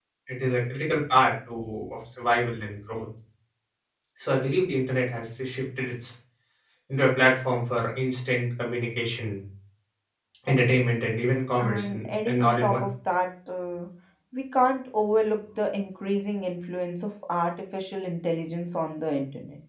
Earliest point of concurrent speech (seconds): 11.6 s

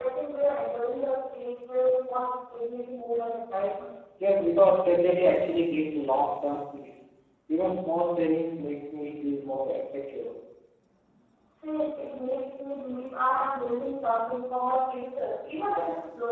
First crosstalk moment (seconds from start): none

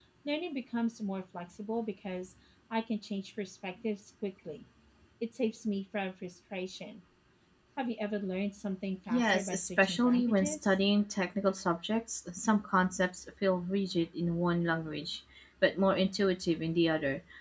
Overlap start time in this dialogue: 9.1 s

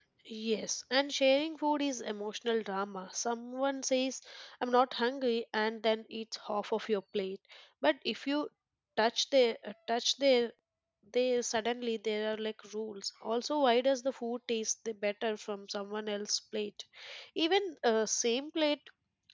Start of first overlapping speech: none

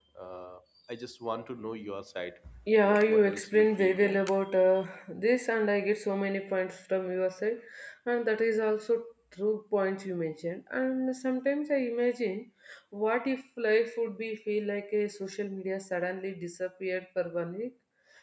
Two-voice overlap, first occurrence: 2.8 s

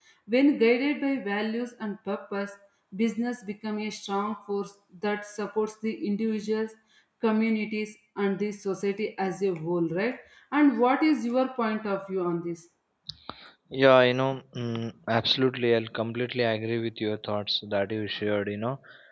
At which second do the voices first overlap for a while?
none

